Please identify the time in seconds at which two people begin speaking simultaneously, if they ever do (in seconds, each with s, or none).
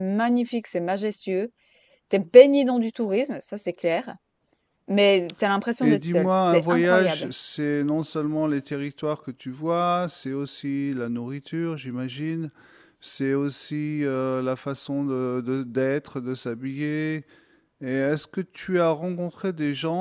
5.8 s